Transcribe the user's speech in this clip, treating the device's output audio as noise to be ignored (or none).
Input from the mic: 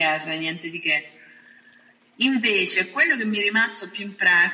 none